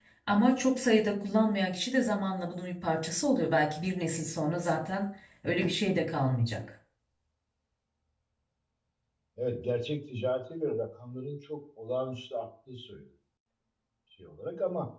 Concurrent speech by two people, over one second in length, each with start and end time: none

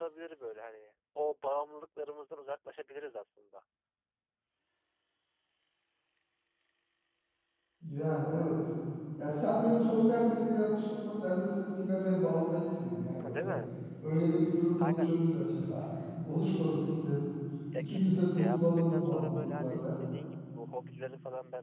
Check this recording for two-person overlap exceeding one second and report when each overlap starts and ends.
17.8-19.8

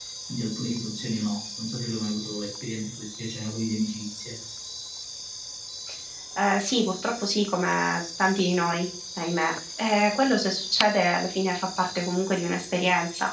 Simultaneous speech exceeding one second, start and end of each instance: none

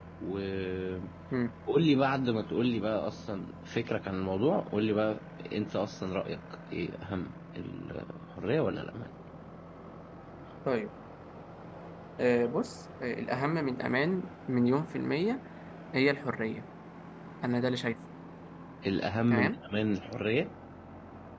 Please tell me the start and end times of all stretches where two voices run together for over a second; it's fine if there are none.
none

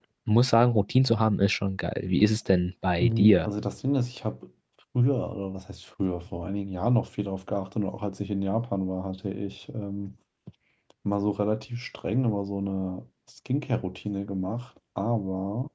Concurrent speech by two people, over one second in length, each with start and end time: none

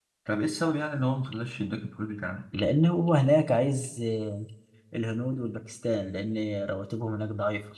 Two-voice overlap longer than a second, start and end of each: none

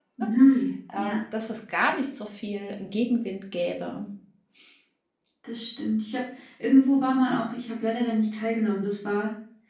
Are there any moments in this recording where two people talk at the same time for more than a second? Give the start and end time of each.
none

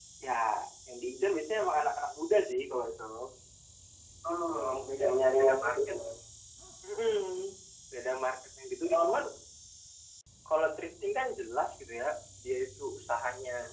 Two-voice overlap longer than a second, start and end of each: 4.6-5.8

